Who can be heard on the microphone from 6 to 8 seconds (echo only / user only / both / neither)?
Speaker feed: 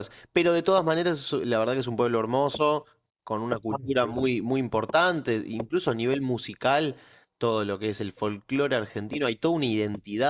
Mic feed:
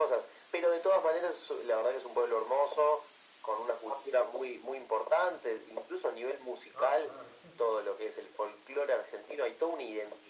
both